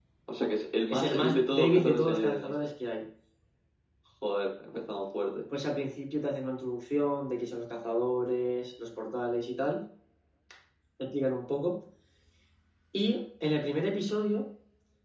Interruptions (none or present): present